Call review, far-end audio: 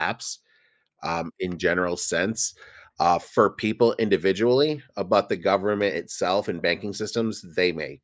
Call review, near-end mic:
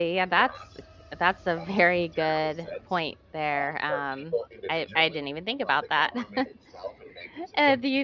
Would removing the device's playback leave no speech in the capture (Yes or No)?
No